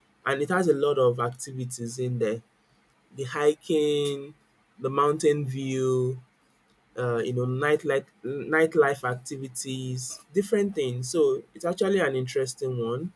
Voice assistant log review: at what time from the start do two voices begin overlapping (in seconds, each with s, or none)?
none